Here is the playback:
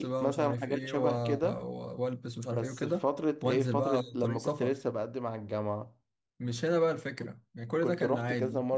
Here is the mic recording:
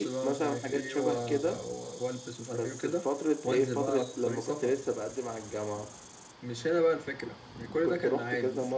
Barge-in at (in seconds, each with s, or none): none